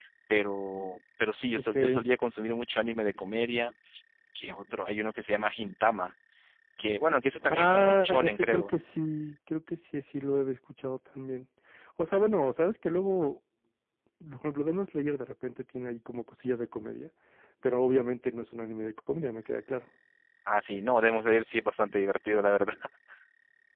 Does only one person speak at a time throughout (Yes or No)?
No